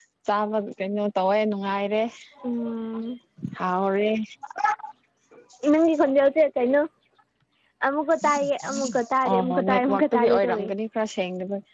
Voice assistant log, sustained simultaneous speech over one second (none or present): present